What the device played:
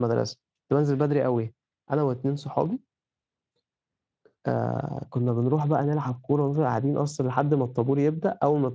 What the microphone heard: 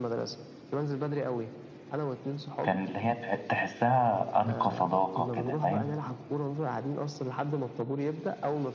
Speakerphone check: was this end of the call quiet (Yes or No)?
No